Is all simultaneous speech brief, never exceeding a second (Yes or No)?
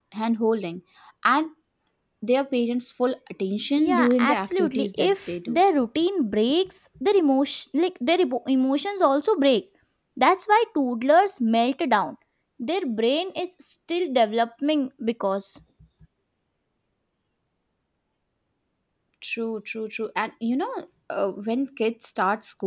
No